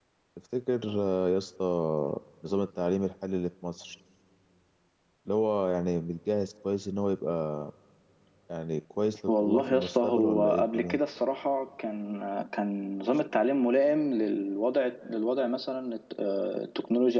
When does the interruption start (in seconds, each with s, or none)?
9.3 s